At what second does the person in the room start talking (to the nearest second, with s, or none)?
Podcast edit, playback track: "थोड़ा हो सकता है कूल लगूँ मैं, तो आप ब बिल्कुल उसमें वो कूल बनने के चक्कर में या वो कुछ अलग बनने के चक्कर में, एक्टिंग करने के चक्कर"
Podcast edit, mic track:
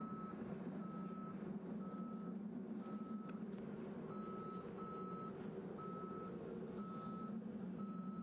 none